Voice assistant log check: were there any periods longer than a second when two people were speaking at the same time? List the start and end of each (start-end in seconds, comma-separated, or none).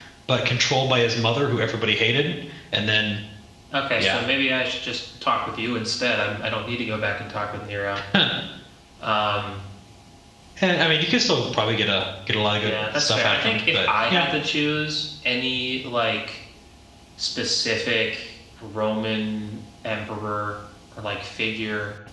12.6-14.3